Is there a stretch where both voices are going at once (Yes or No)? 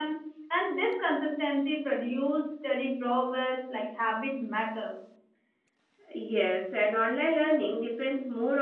No